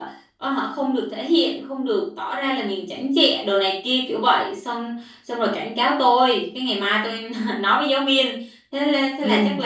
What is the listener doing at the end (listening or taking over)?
listening